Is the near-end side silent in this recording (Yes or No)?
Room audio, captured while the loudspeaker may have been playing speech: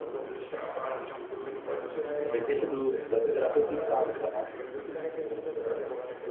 No